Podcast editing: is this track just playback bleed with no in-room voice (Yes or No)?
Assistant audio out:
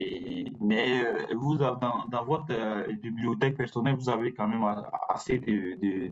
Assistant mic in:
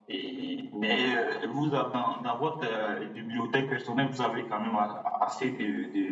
Yes